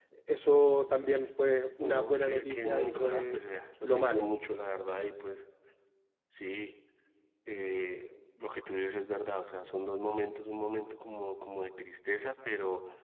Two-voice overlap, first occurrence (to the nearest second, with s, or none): 2 s